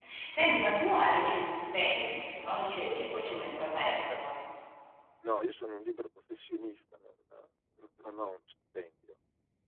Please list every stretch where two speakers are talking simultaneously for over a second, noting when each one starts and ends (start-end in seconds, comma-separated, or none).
none